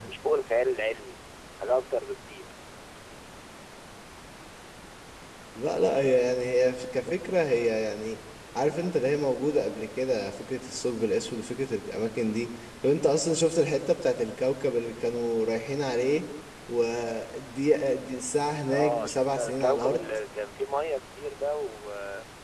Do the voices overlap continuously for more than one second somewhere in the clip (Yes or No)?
Yes